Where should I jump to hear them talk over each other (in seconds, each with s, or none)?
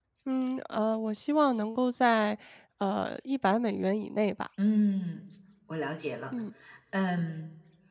none